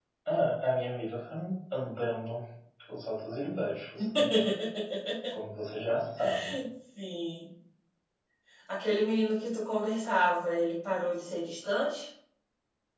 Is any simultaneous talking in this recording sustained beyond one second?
No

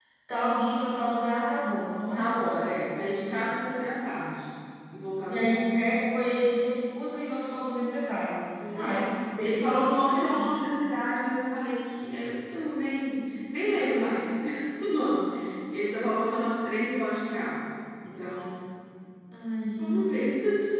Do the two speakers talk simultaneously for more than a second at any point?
Yes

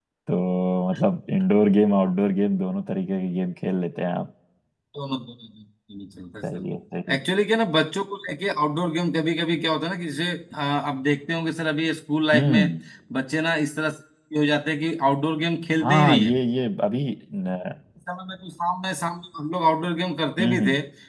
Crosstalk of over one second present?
No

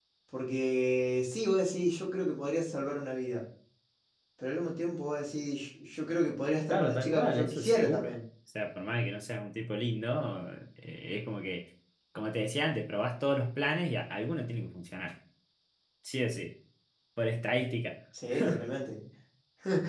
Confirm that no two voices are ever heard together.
No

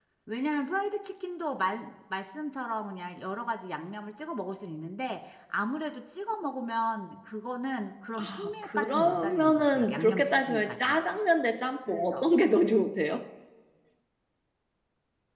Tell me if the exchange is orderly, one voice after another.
No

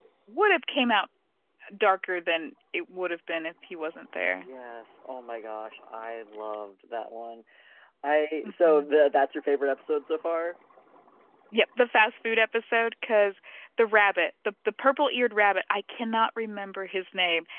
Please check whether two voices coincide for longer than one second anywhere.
No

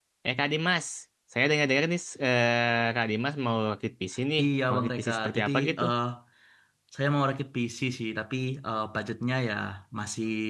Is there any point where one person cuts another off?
Yes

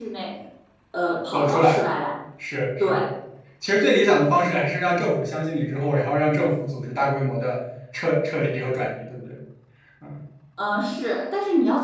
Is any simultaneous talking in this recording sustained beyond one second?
No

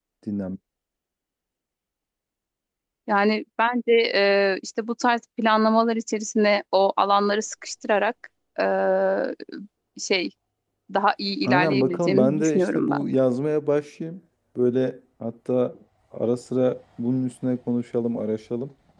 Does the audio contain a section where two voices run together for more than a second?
Yes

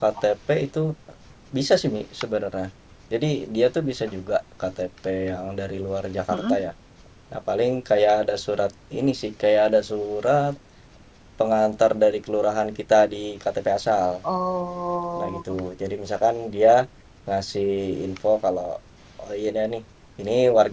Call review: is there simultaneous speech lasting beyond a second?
No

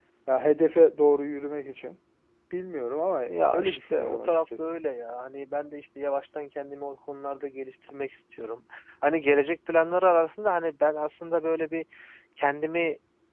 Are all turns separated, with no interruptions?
No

